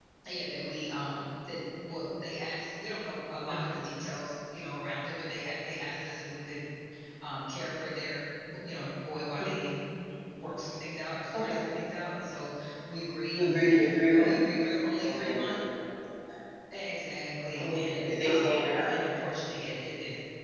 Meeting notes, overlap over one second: present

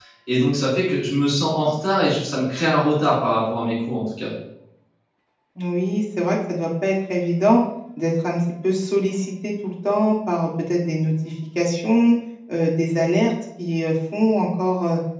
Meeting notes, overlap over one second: none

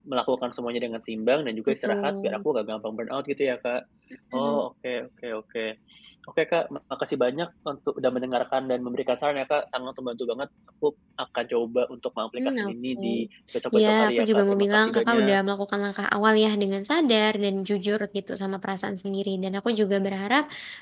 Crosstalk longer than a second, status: present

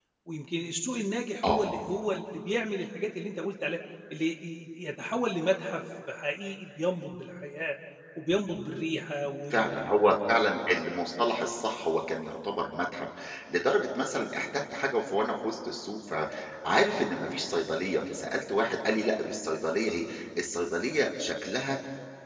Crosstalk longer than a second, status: none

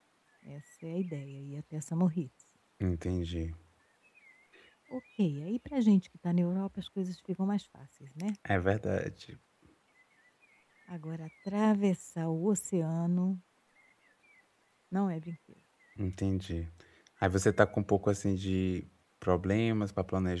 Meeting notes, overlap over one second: none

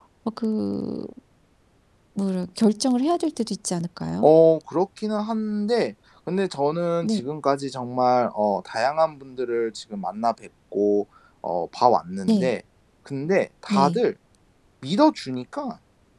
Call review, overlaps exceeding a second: none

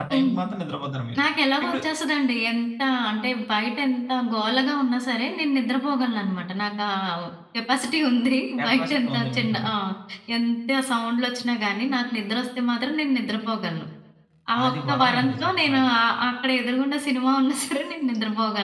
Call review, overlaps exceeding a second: present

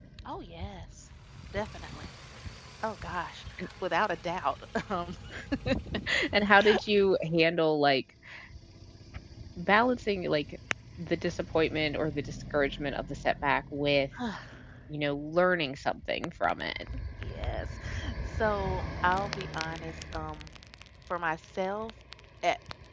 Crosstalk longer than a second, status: none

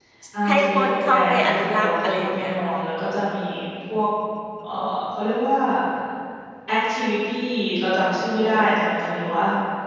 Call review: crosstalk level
present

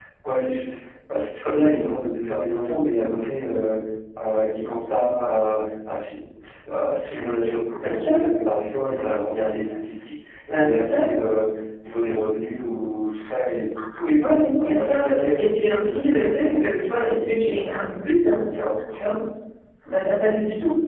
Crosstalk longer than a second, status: present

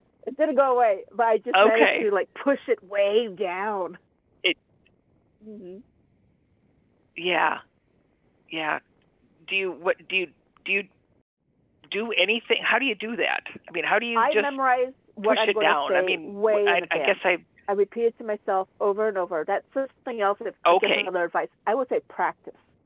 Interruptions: present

